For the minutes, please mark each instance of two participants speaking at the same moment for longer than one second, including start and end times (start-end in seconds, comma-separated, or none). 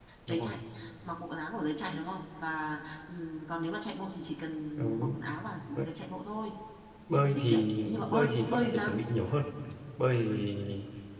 7.1-8.9